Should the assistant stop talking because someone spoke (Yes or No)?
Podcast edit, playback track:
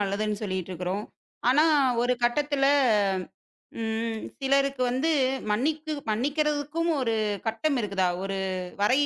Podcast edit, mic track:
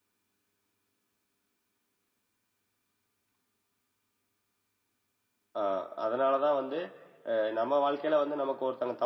Yes